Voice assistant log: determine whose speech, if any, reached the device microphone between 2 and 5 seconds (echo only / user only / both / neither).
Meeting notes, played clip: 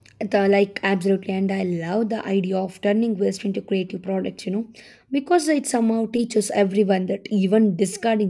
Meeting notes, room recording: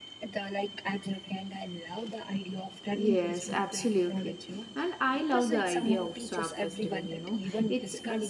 both